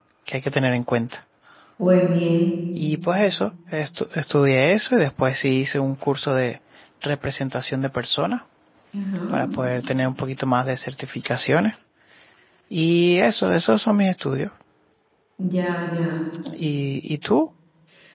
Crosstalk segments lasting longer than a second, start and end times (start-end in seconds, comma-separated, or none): none